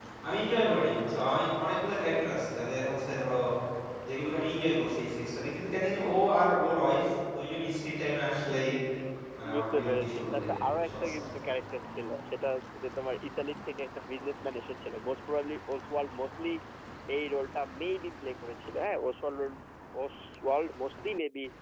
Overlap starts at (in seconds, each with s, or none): 9.5 s